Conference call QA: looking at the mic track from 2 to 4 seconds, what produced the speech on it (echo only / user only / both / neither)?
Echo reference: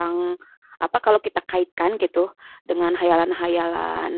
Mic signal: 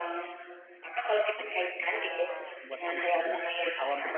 both